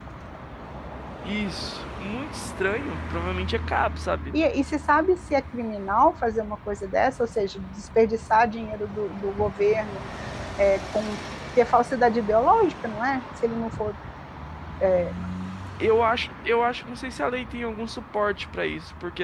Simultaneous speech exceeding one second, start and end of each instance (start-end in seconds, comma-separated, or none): none